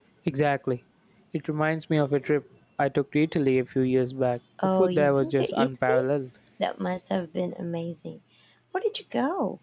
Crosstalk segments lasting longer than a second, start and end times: 4.6-6.0

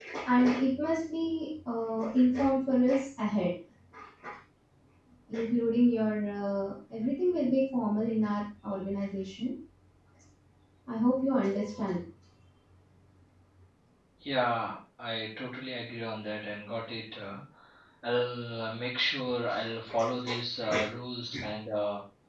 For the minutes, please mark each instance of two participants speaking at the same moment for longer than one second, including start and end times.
none

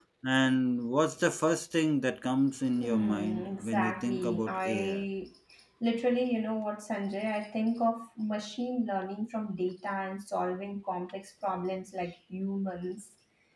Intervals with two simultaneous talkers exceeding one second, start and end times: 2.8-5.0

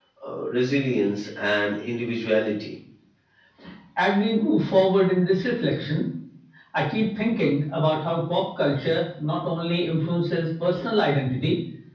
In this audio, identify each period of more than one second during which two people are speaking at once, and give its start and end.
none

